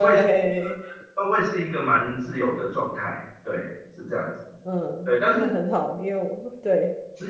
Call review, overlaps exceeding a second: none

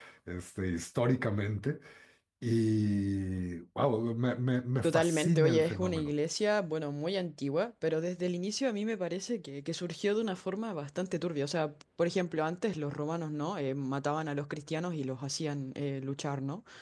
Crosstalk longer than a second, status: present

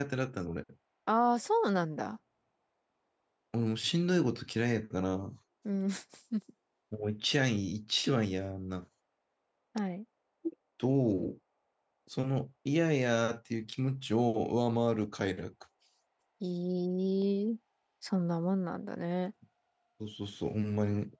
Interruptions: none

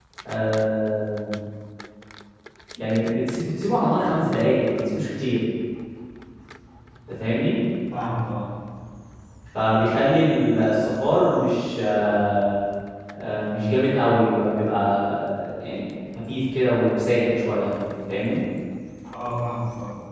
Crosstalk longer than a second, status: none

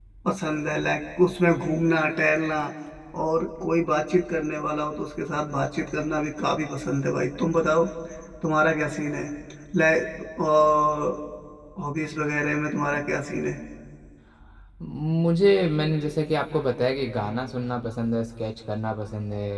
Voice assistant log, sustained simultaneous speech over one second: none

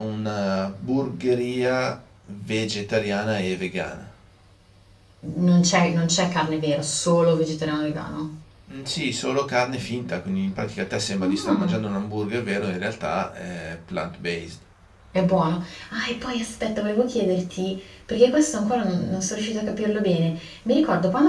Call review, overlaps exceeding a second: none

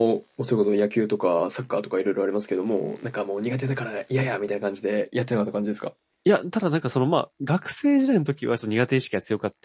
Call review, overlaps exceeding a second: none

